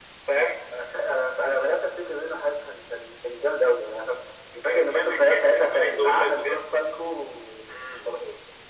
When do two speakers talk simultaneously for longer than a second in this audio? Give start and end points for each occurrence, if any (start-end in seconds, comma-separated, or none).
4.6-6.6